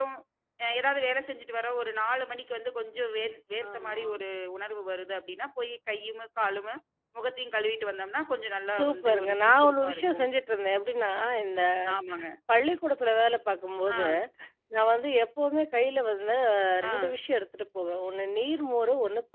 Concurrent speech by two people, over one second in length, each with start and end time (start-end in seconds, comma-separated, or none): 8.7-10.3